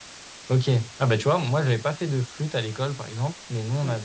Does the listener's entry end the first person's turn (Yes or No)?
No